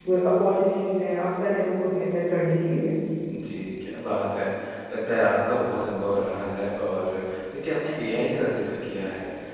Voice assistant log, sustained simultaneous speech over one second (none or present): none